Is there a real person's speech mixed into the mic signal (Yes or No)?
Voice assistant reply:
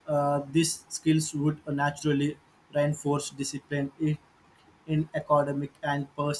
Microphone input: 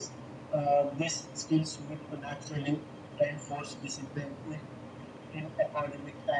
No